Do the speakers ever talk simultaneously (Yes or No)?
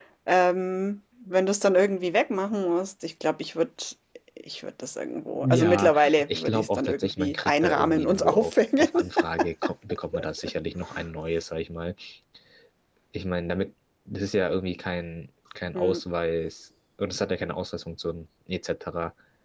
Yes